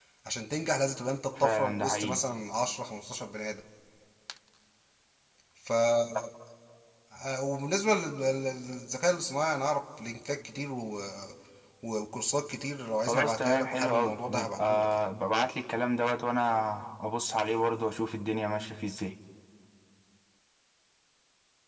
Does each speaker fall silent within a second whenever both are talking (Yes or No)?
No